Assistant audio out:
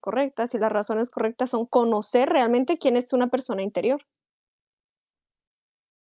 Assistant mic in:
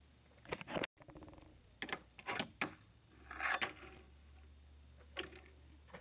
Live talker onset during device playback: none

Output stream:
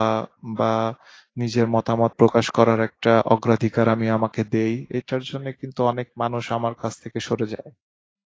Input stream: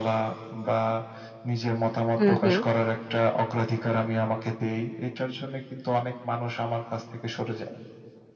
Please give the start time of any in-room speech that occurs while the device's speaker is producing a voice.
2.2 s

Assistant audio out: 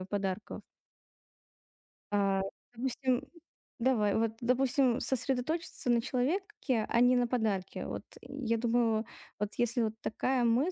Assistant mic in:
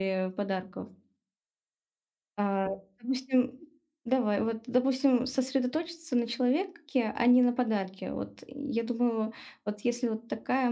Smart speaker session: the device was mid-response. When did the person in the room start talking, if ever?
none

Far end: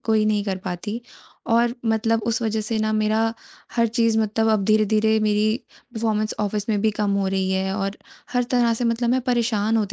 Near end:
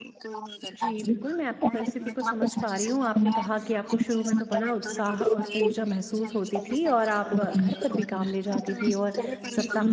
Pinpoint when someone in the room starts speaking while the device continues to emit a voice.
0.8 s

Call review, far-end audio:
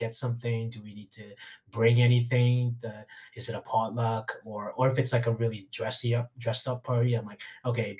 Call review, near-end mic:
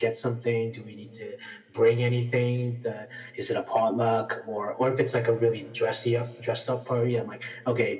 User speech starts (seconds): none

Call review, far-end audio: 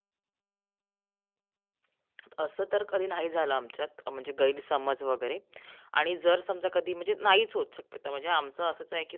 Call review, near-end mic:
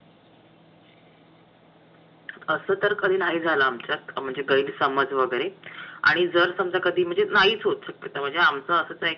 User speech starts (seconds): none

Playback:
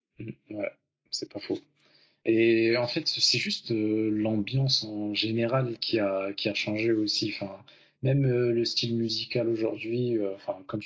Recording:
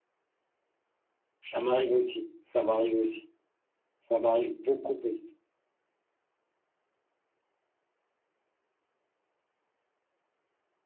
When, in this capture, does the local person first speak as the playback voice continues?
1.4 s

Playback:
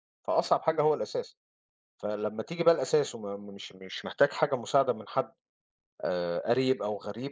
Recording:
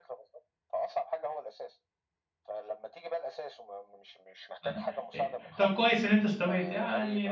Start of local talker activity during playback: 4.6 s

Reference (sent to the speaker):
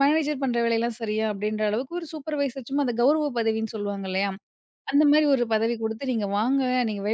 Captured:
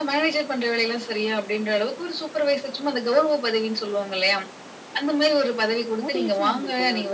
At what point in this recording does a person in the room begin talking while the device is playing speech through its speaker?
6.0 s

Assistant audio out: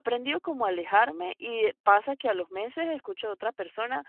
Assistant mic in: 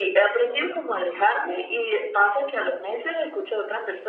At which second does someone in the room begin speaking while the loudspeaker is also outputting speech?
none

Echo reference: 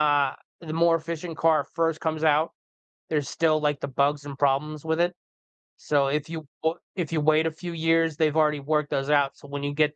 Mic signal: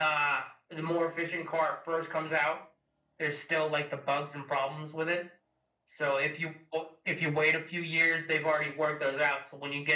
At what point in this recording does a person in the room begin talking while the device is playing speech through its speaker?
none

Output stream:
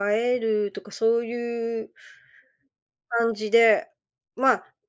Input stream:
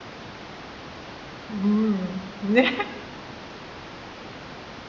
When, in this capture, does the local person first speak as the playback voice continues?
1.5 s

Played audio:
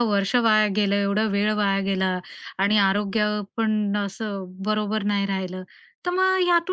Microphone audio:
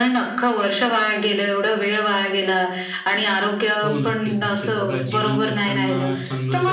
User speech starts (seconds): 3.8 s

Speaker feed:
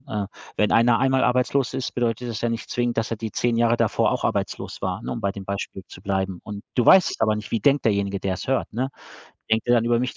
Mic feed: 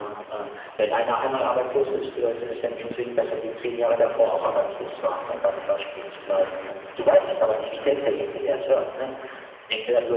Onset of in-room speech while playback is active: none

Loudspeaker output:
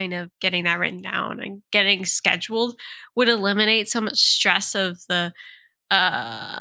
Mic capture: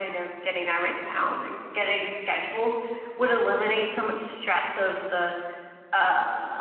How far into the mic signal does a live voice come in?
none

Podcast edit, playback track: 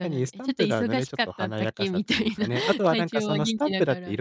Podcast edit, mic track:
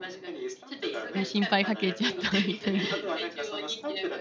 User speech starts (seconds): 1.1 s

